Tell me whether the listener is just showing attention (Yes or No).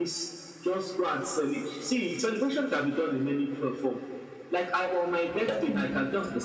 Yes